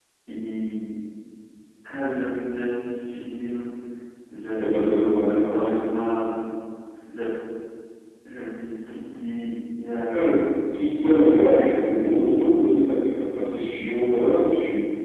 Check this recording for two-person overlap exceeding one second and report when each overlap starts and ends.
4.6-5.8, 10.9-12.9

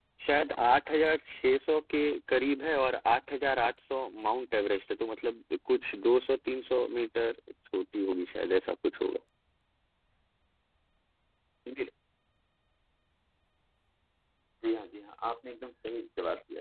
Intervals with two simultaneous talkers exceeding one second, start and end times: none

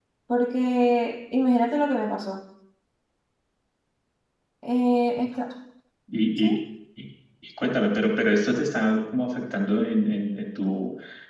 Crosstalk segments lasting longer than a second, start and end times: none

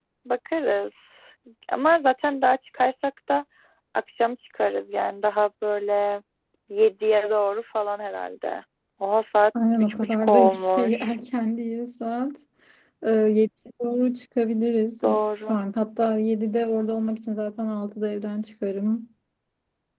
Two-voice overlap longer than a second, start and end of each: 9.8-11.1

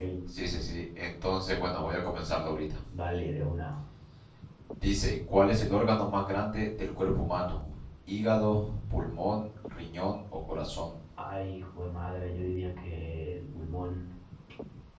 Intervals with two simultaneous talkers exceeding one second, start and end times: none

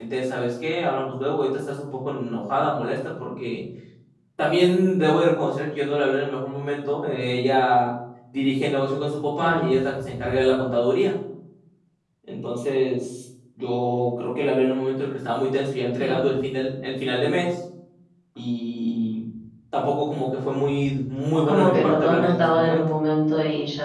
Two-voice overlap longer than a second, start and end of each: 21.5-22.8

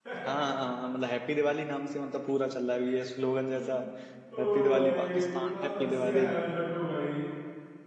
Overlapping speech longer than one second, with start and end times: 4.4-6.3

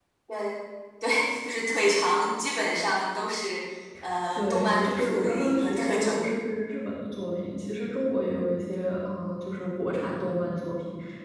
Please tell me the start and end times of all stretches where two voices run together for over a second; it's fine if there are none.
4.3-6.2

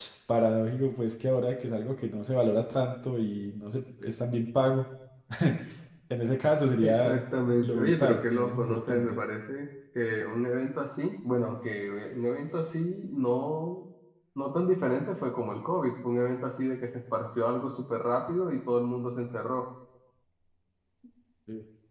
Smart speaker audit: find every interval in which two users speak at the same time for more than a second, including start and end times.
7.6-9.2

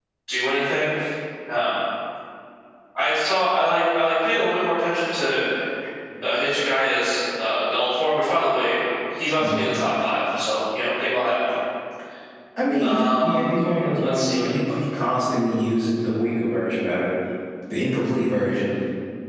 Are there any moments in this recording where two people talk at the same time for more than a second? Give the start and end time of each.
none

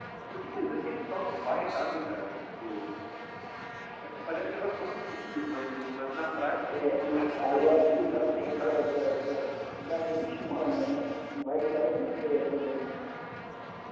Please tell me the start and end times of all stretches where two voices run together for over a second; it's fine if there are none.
6.7-8.9

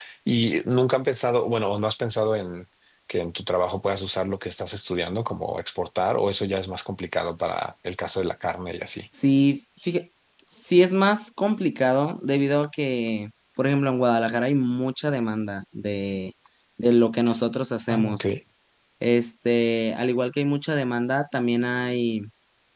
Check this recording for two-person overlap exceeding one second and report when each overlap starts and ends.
none

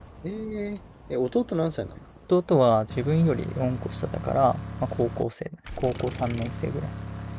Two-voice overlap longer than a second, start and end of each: none

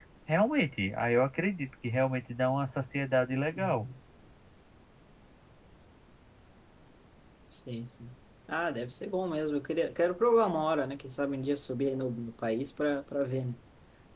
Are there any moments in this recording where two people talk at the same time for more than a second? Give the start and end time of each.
none

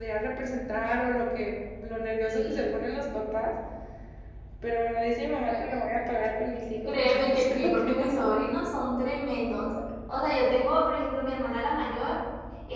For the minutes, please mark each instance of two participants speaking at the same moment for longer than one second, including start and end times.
6.8-8.3

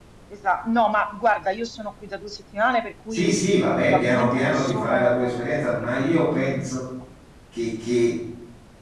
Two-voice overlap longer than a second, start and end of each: 3.8-6.7

